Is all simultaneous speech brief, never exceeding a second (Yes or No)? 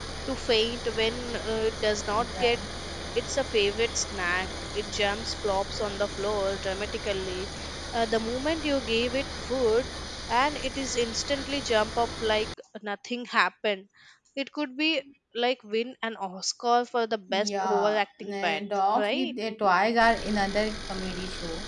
No